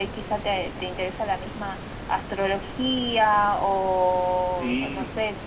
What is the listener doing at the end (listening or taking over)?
listening